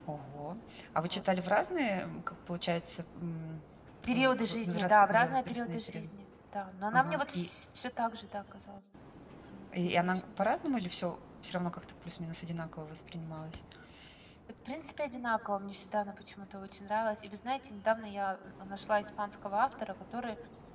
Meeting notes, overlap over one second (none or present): present